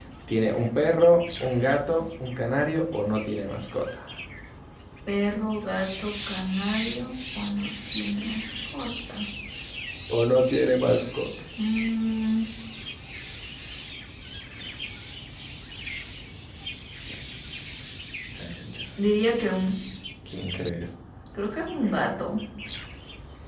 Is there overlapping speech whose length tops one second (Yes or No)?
No